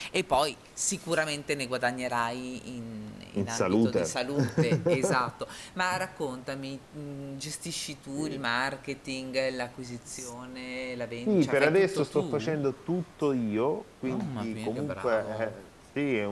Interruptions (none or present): present